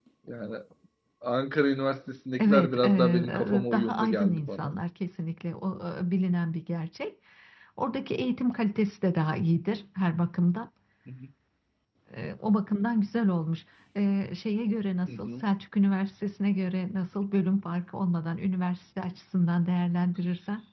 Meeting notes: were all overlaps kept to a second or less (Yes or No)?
No